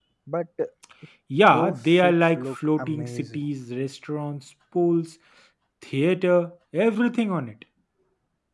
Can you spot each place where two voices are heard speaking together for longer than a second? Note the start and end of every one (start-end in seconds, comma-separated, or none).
1.5-3.4